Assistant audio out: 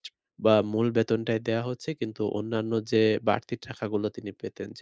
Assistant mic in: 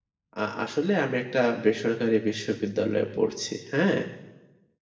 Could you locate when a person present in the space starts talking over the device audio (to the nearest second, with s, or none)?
0 s